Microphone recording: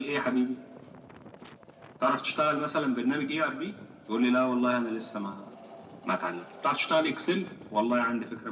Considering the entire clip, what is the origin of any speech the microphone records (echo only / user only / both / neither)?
echo only